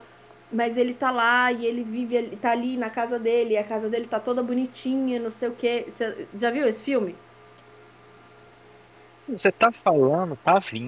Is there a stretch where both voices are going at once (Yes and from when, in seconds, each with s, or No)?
No